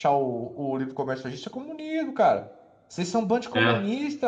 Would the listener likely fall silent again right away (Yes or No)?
Yes